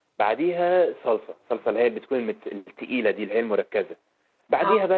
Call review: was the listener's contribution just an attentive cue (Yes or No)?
Yes